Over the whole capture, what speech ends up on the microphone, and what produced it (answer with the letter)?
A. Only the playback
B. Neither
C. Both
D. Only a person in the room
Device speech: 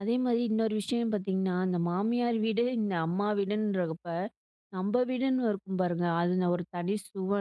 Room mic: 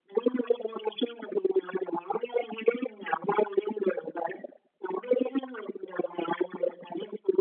A